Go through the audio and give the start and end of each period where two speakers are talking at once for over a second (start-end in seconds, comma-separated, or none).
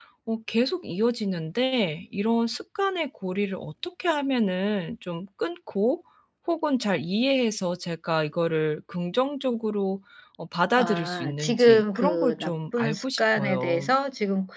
10.8-13.9